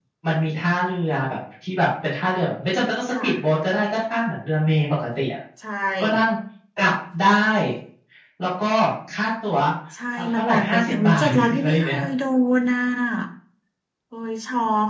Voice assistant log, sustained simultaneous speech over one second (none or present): present